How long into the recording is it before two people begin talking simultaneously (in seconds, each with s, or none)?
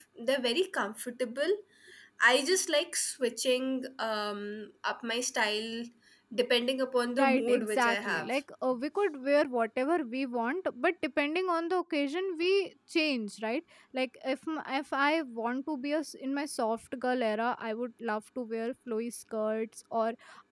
7.2 s